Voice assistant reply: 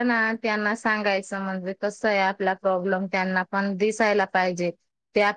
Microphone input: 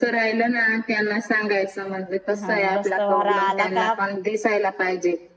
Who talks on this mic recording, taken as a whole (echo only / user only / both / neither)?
both